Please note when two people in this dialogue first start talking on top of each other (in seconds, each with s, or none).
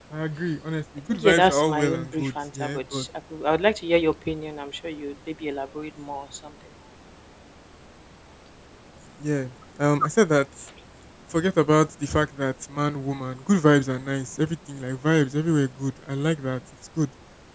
1.1 s